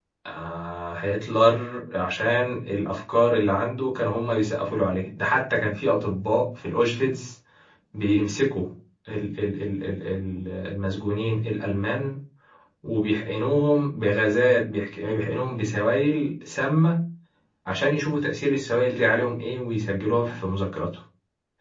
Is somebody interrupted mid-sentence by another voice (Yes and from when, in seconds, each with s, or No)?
No